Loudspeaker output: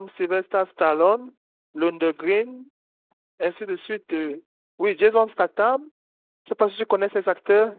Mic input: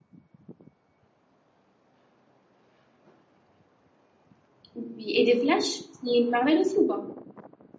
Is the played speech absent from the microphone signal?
Yes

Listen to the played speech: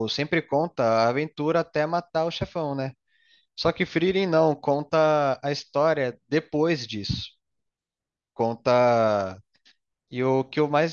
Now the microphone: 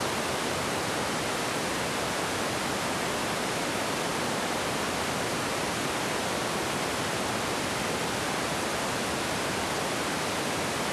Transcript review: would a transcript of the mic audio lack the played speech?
Yes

